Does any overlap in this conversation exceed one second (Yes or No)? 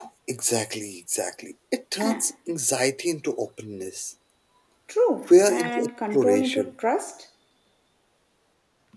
Yes